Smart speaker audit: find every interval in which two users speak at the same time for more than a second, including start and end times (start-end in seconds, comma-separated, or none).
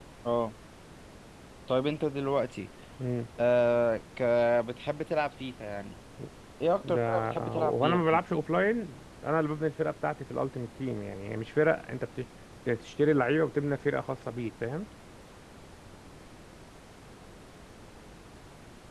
6.8-8.2